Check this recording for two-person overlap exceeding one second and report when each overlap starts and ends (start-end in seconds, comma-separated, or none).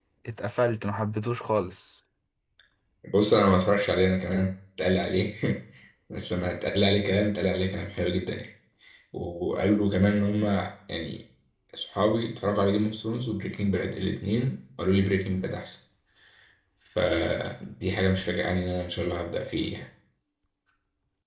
none